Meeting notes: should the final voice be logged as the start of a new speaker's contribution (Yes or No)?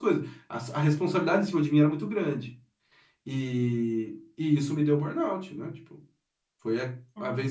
No